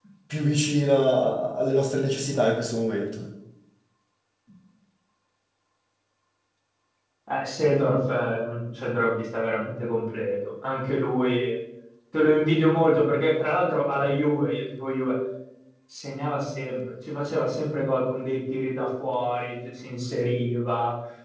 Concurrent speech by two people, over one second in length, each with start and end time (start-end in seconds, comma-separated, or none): none